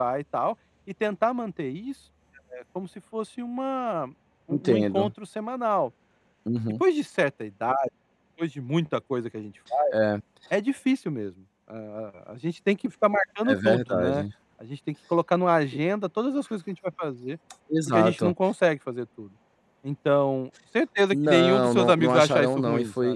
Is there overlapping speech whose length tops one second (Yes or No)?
Yes